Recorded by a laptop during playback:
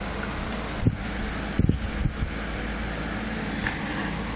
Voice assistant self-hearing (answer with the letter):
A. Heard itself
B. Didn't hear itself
B